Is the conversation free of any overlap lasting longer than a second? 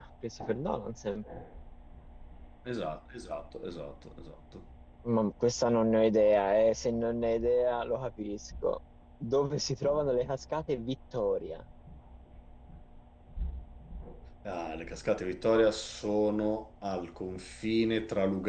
Yes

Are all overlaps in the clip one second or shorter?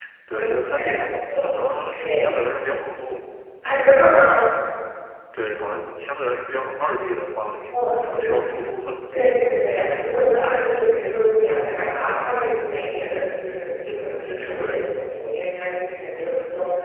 No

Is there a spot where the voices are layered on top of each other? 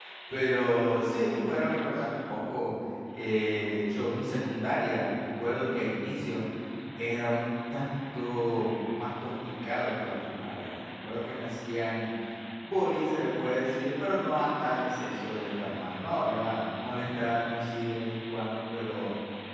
No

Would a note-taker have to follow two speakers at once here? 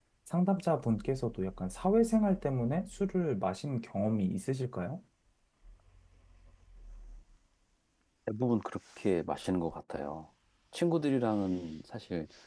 No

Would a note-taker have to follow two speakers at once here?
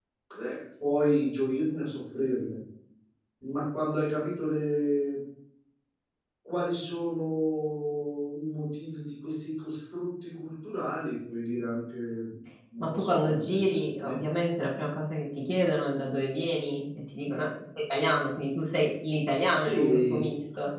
Yes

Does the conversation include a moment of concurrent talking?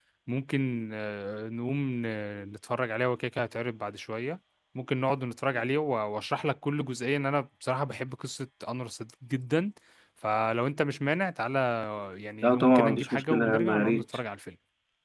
Yes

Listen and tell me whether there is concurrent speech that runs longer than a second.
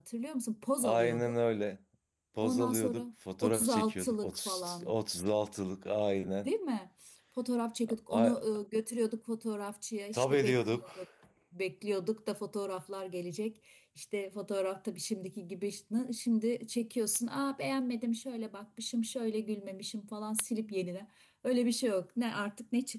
Yes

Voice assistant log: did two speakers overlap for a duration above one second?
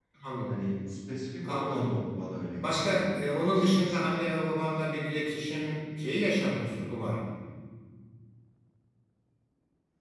Yes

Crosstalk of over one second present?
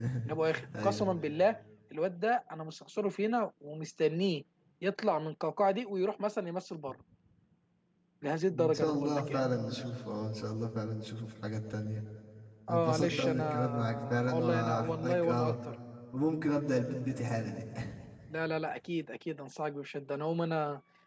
Yes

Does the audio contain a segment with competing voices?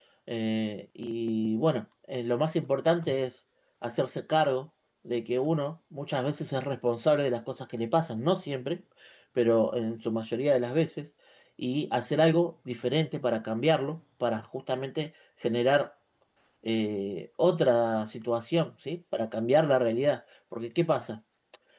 No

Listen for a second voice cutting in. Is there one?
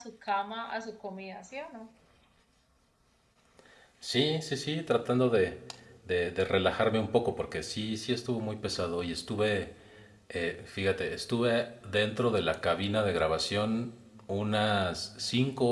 No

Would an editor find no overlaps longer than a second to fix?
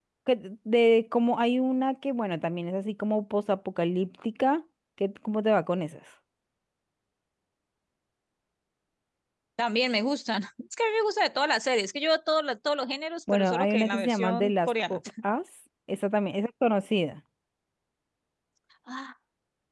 No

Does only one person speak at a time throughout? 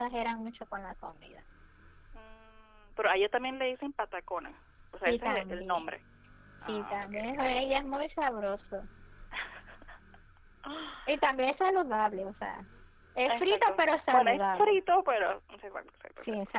No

